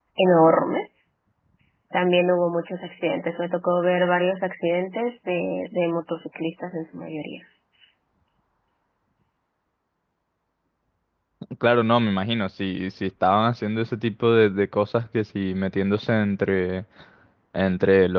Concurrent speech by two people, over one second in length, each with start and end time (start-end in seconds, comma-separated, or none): none